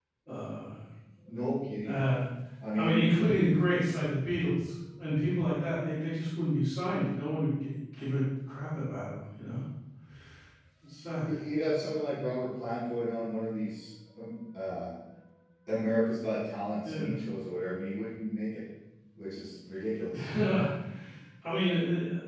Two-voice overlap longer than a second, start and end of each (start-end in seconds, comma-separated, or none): none